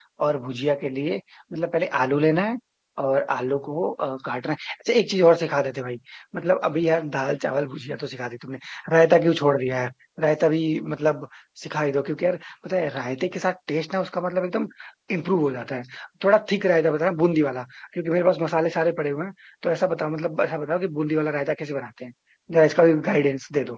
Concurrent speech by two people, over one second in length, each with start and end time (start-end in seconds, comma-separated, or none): none